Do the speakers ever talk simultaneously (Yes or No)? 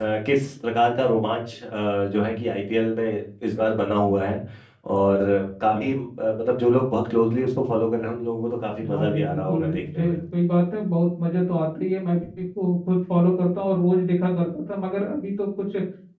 Yes